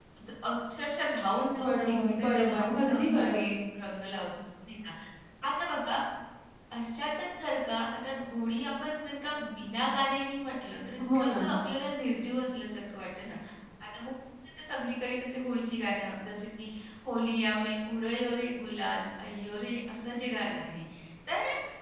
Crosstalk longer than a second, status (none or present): present